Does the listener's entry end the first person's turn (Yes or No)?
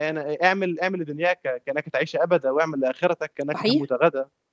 No